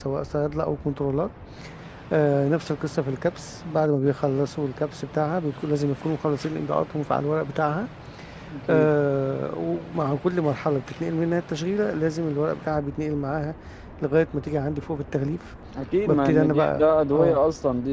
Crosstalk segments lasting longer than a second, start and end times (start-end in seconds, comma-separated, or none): 16.1-17.4